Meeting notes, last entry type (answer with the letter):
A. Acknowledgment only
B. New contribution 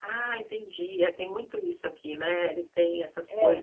B